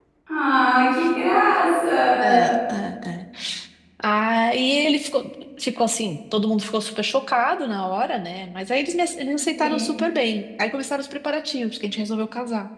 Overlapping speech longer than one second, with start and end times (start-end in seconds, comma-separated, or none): none